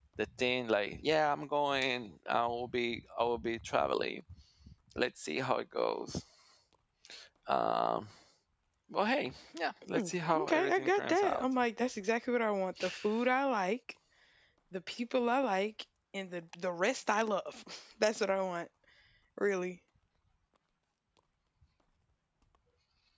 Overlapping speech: Yes, from 9.9 s

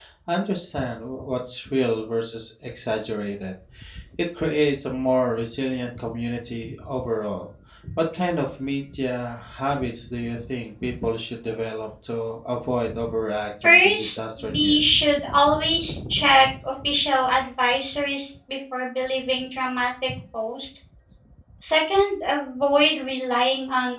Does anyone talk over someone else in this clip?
Yes, from 13.6 s

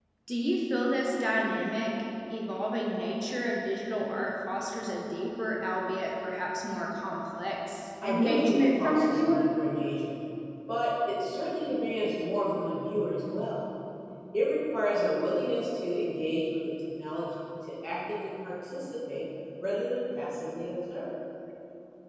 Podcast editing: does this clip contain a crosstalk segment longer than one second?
Yes, from 8.0 s

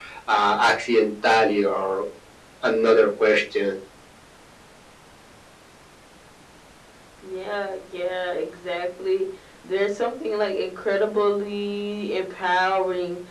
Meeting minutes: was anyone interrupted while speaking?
No

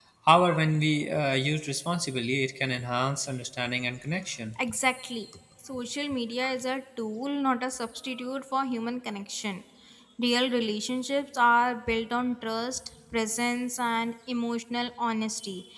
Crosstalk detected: No

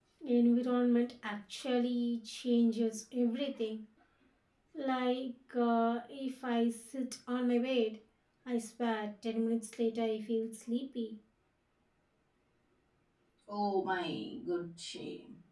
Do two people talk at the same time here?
No

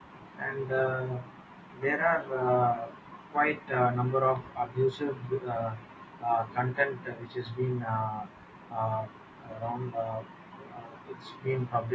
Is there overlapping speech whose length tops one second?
No

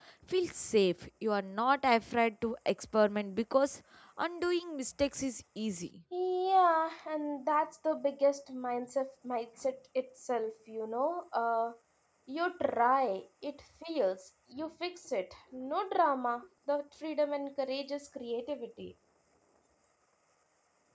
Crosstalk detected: No

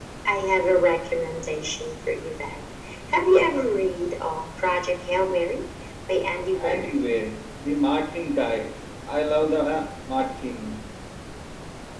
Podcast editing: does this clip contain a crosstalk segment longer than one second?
No

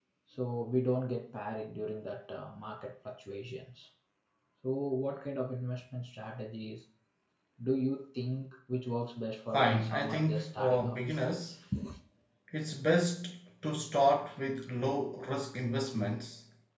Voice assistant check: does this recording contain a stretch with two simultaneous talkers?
Yes, from 9.5 s

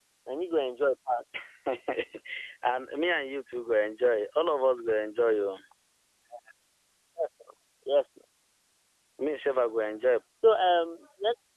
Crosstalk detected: No

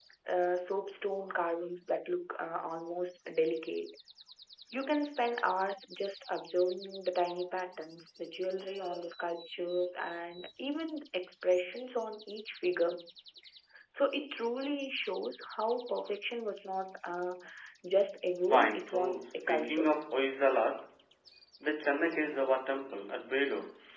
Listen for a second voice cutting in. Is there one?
Yes, from 18.5 s

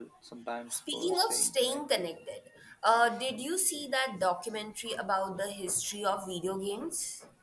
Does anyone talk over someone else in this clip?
Yes, from 0.7 s

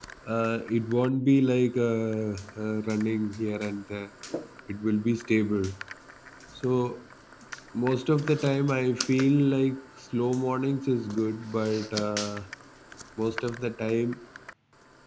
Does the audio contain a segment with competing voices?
No

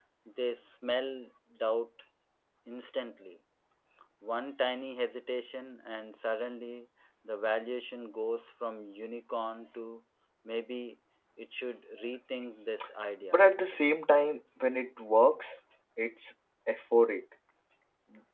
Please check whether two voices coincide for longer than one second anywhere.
No

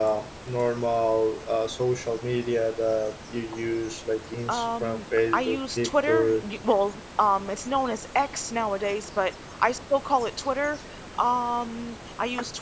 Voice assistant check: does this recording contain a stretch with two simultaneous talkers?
Yes, from 4.5 s

